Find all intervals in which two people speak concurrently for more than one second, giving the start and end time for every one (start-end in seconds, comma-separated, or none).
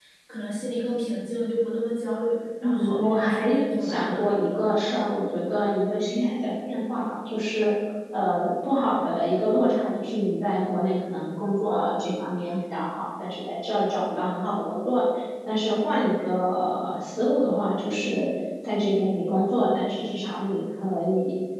2.6-4.4